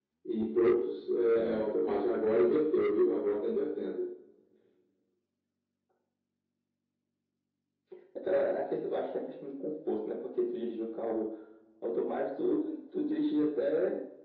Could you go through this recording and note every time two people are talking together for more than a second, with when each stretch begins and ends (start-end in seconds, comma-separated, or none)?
none